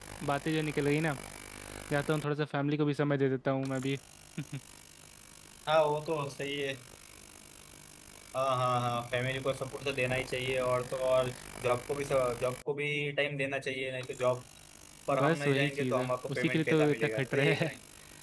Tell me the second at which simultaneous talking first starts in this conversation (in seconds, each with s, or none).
15.1 s